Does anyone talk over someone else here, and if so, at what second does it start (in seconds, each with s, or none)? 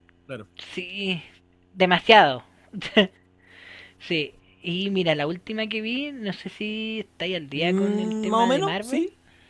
7.5 s